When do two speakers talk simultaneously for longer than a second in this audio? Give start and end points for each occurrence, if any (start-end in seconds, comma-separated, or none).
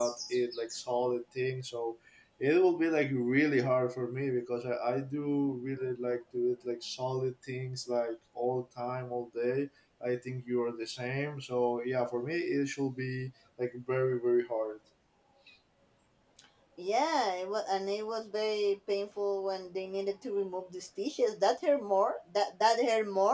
none